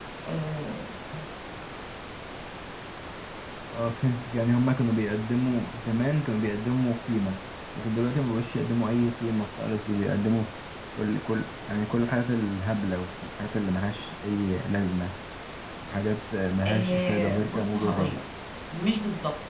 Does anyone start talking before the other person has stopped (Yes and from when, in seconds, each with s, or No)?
Yes, from 16.6 s